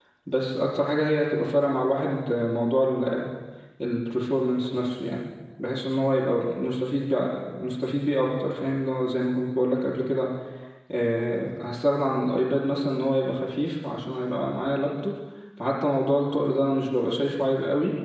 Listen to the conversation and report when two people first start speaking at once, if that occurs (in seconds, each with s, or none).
none